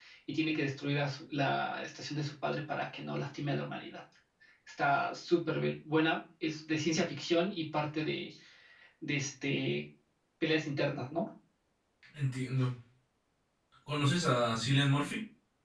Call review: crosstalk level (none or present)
none